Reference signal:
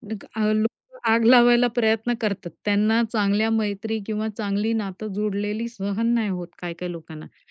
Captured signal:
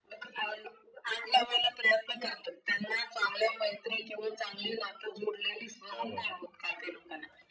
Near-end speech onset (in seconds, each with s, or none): 5.9 s